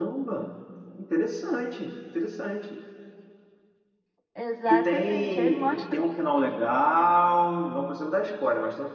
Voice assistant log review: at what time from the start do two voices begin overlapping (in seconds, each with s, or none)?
4.6 s